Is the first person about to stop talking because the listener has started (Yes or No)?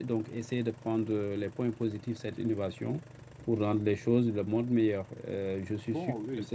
No